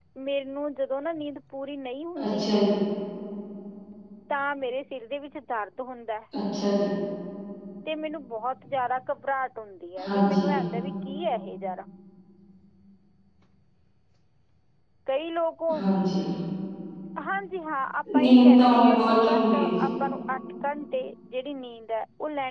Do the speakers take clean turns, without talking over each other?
No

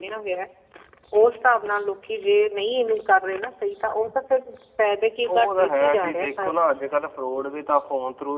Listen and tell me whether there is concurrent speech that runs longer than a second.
Yes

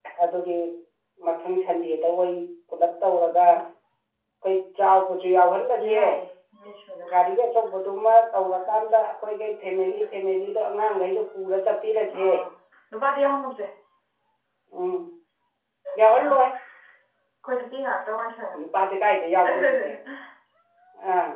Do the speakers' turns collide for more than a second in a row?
No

